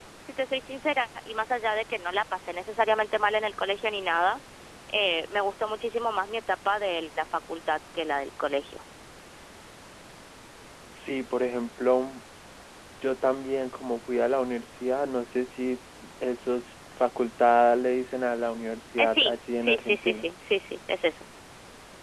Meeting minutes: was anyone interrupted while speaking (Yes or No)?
Yes